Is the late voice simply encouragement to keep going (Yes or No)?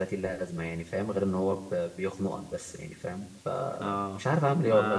No